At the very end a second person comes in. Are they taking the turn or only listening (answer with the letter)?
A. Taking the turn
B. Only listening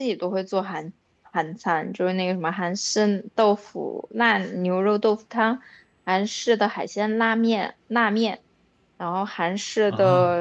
B